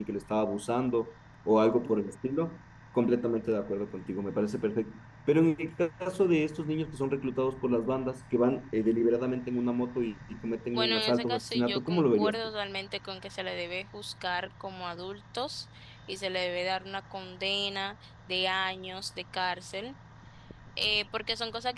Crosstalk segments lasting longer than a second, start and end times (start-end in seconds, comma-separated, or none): 10.7-12.4